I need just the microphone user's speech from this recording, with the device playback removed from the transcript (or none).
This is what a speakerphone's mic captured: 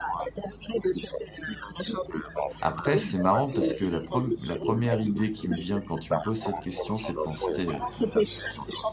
Après, c'est marrant parce que la preme la 1e idée qui me vient quand tu me poses cette question, c'est de penser, heu-